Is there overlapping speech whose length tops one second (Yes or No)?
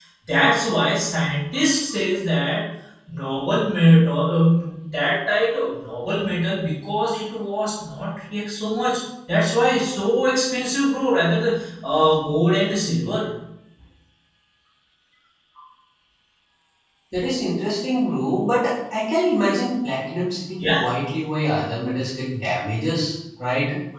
No